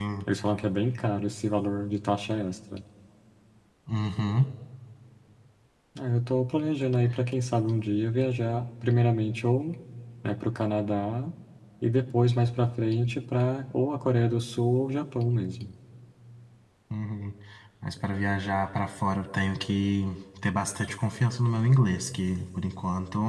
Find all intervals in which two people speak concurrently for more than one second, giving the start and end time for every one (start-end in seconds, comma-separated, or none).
none